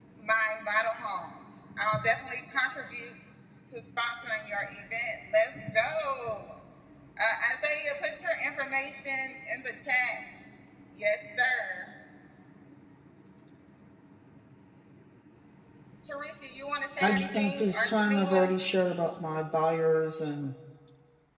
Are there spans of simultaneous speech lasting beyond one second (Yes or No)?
Yes